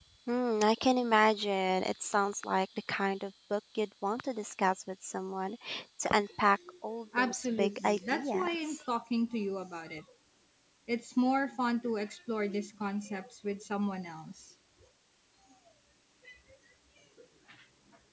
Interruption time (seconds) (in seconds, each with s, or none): 7.2 s